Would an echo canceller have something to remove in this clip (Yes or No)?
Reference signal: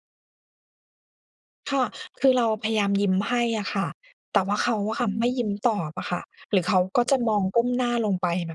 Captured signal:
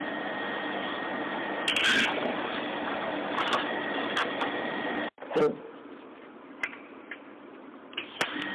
No